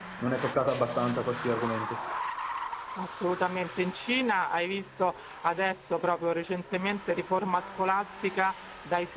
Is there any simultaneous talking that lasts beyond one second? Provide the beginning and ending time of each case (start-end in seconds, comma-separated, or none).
none